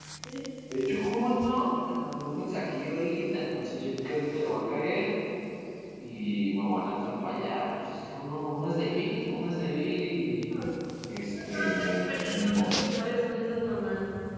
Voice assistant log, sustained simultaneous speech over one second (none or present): present